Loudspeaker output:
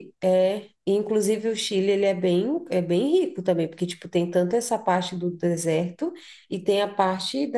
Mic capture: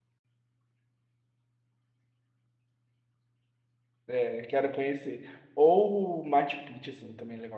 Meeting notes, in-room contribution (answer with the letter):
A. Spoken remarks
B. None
A